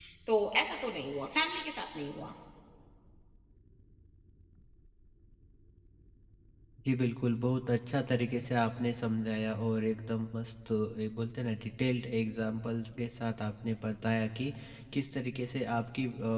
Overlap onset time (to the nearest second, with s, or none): none